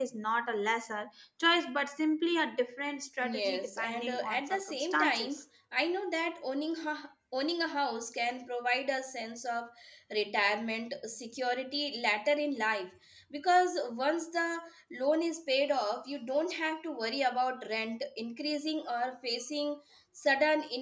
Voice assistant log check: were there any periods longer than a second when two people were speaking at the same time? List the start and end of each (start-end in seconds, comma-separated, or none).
3.2-5.4